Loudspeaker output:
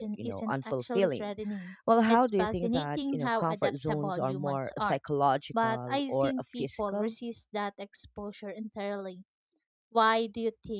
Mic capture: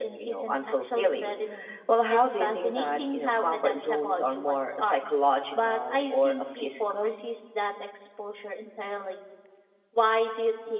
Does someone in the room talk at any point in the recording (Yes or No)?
No